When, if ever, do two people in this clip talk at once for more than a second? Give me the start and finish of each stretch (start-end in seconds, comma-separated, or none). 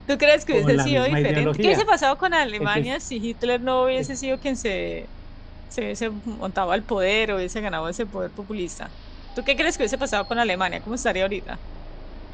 0.5-1.8